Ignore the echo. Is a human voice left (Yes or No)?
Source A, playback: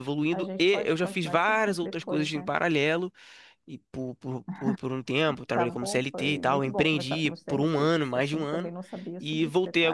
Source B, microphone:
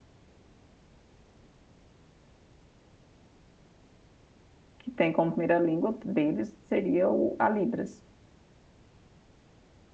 Yes